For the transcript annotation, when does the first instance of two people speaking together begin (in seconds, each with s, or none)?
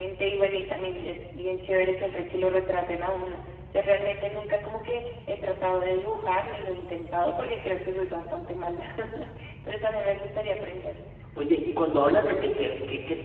none